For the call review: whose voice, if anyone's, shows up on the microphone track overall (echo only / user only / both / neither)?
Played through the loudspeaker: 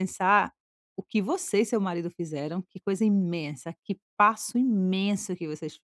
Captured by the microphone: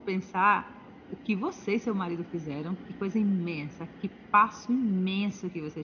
echo only